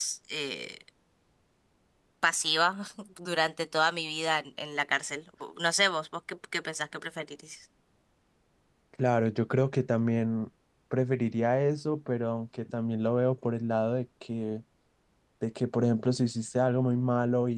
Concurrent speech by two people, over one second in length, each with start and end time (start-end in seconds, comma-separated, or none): none